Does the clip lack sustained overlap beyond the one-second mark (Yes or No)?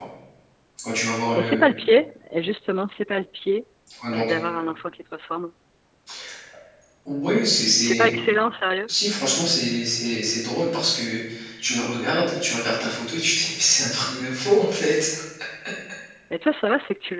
Yes